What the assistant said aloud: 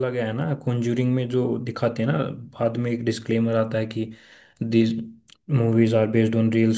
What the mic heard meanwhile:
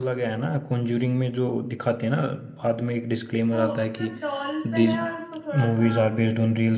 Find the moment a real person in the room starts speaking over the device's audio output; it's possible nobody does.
3.5 s

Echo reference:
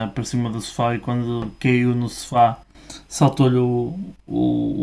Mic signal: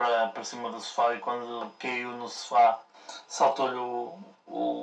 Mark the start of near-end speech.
none

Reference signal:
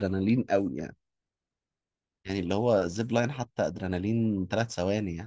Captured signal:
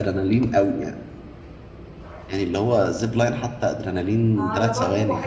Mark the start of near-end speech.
4.4 s

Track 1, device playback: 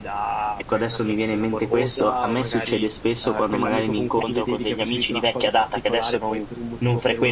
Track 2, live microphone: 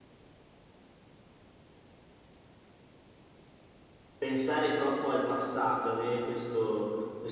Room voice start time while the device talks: 4.2 s

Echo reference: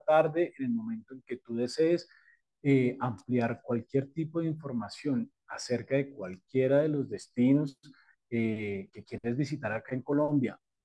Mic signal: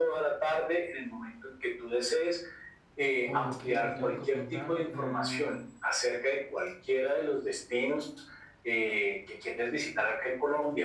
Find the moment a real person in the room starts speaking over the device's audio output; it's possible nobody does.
3.2 s

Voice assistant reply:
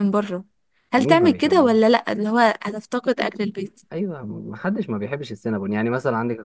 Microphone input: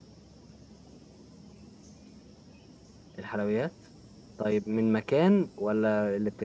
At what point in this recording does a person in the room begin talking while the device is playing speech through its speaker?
3.2 s

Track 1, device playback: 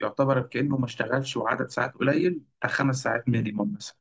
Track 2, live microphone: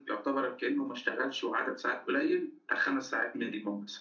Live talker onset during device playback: none

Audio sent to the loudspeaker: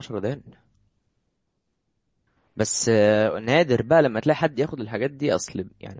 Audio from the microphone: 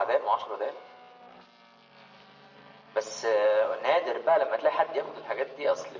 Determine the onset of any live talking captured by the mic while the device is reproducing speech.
none

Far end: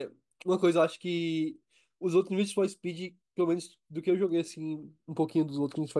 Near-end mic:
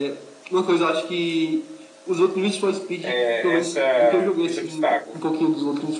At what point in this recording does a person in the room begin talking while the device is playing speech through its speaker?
3.0 s

